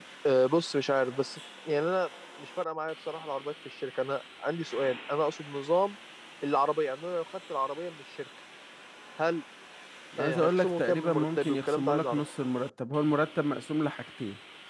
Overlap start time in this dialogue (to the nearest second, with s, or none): 10 s